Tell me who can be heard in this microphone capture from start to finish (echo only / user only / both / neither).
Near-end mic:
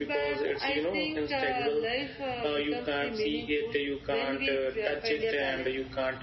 echo only